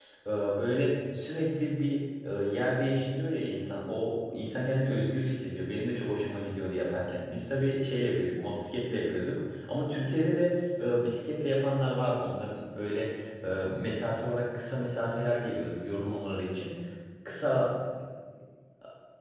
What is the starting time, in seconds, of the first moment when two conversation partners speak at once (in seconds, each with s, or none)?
none